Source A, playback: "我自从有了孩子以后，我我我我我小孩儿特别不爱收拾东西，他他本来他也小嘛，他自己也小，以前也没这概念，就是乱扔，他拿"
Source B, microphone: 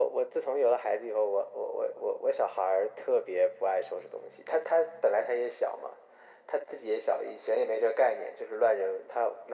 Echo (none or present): present